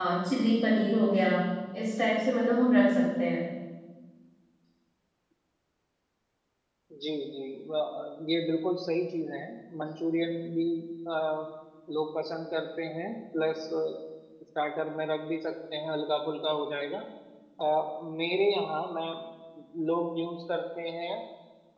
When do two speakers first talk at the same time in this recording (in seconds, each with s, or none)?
none